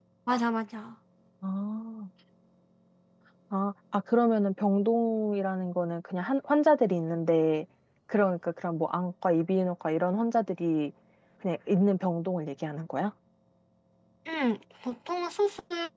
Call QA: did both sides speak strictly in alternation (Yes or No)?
Yes